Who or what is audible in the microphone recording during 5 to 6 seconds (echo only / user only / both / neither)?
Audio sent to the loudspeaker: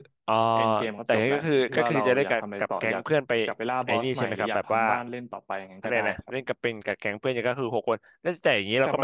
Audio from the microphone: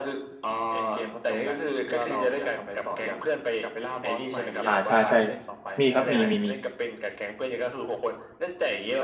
both